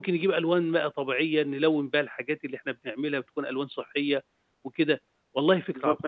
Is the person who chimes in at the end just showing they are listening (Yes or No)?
No